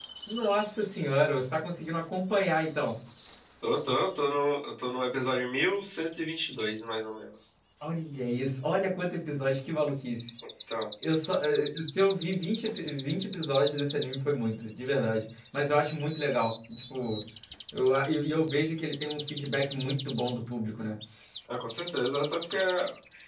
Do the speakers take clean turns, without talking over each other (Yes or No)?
Yes